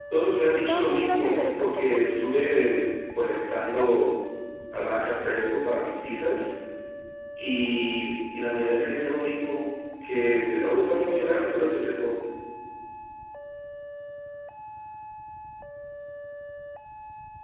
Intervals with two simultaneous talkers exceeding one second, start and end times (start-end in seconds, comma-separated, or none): 0.6-2.0